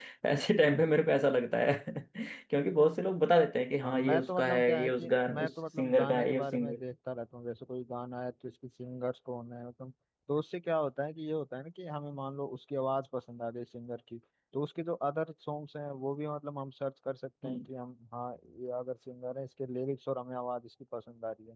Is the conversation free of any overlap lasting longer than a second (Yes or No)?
No